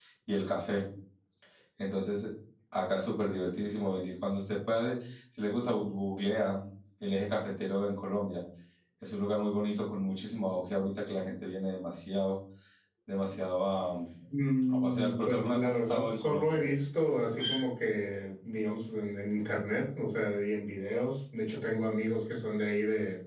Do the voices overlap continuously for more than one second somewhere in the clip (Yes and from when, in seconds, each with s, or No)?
Yes, from 14.7 s